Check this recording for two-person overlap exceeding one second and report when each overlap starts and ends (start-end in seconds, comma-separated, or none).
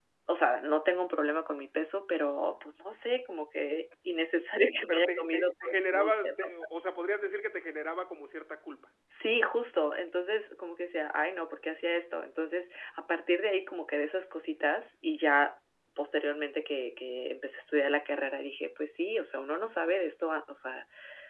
4.9-6.5